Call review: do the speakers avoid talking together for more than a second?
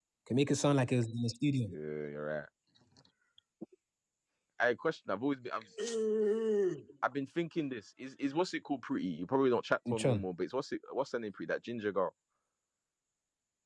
Yes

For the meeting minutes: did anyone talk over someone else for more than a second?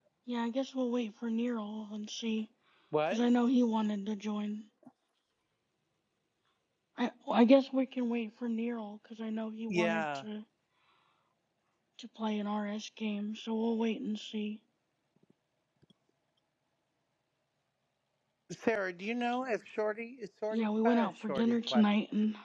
Yes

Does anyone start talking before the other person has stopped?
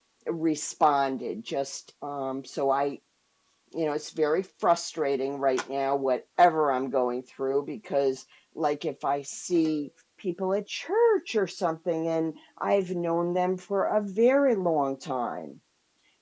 No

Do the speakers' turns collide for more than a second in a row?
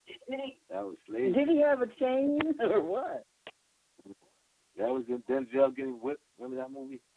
No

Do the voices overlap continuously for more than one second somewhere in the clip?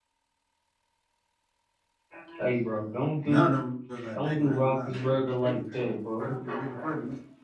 Yes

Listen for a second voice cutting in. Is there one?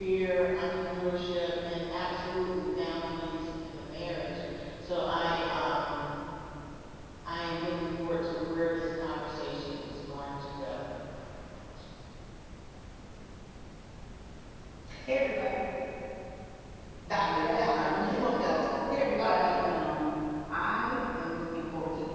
Yes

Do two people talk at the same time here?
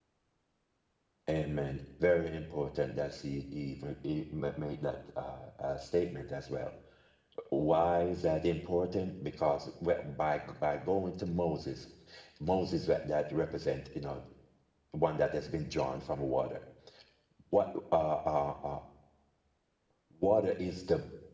No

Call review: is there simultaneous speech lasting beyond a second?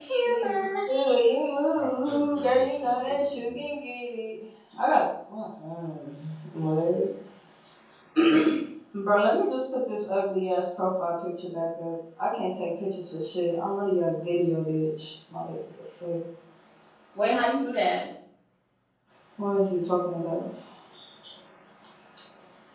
Yes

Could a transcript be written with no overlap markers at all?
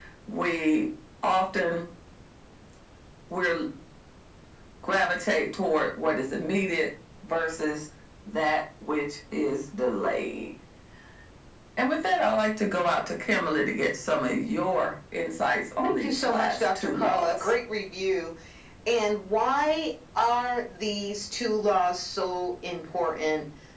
No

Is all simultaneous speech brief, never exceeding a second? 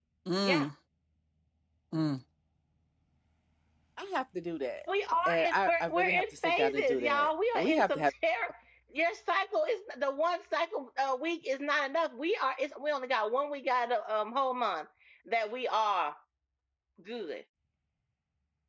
No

